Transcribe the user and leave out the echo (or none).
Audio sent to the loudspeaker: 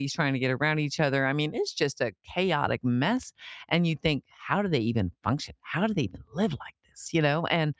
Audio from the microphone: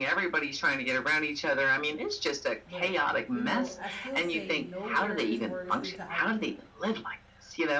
but, eh, you know, I still say nowhere is worse than Thailand.